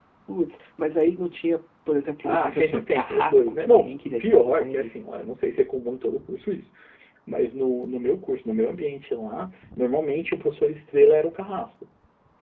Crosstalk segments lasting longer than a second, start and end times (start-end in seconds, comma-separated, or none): 2.2-4.9